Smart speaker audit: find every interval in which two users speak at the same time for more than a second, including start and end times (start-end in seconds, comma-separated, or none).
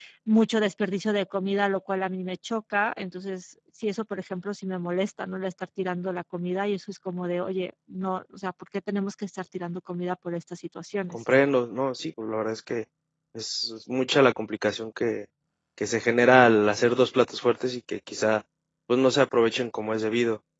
none